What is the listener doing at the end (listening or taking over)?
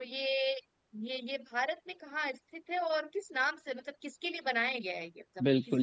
taking over